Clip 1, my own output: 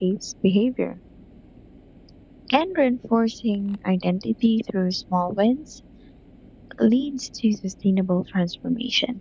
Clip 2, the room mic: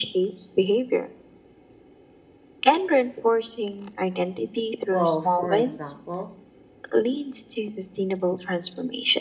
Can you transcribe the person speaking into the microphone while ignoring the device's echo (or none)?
Well, for example,